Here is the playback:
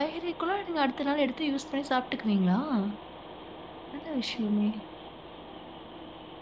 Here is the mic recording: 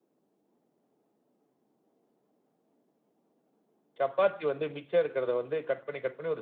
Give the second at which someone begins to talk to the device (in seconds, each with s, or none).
4.0 s